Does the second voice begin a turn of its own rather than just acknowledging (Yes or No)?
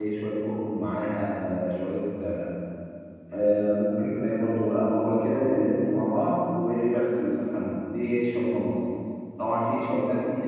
No